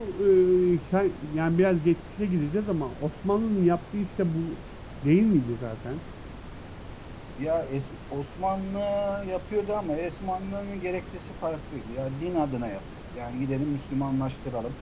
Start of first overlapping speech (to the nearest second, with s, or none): none